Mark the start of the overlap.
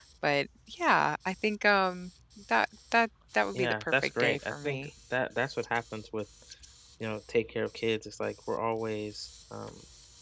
3.5 s

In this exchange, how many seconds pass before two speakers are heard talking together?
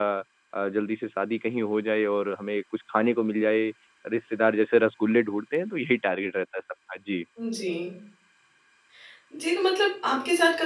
none

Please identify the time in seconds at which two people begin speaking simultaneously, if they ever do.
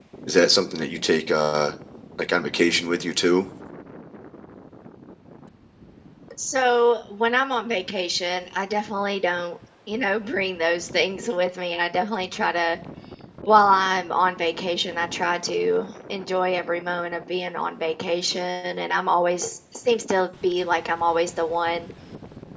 none

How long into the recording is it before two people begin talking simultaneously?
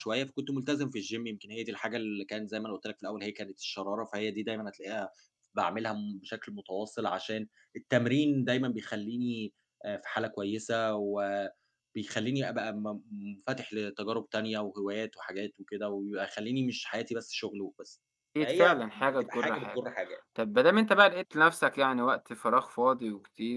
18.4 s

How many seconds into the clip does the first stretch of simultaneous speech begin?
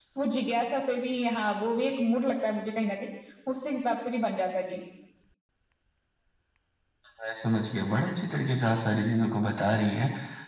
none

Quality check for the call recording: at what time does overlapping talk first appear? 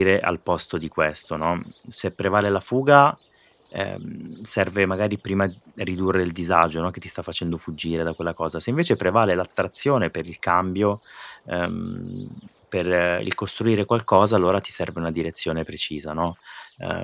none

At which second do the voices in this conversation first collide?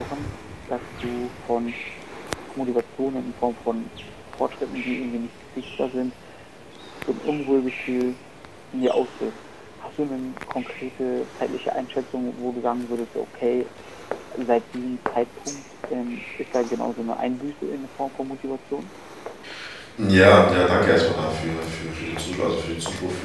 none

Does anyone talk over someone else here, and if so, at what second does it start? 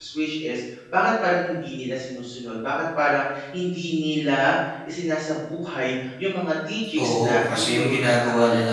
7.0 s

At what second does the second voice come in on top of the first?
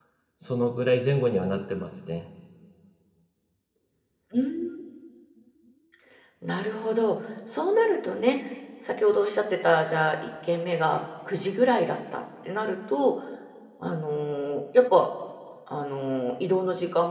none

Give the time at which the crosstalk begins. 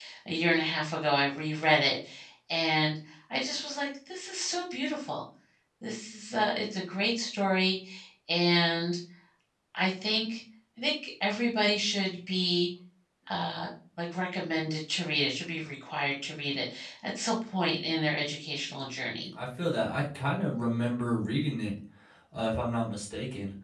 none

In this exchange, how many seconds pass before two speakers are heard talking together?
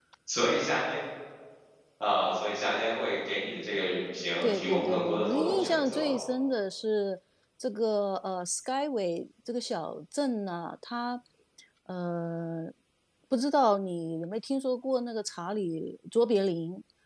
4.4 s

